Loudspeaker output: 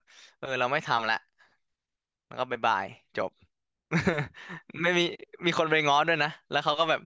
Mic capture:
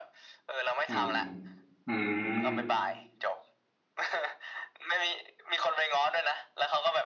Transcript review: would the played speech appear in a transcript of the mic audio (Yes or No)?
Yes